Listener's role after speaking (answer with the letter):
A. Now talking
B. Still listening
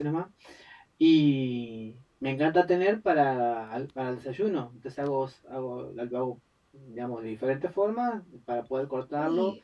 B